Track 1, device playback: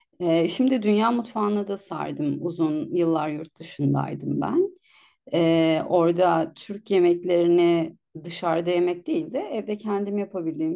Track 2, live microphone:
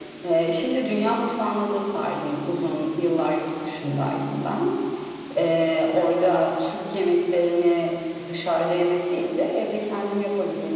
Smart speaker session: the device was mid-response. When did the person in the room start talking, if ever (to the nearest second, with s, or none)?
none